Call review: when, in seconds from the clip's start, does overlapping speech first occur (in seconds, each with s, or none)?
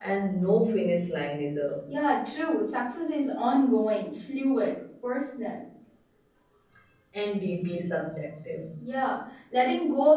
none